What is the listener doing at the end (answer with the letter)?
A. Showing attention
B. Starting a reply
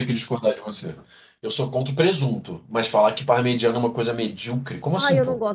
B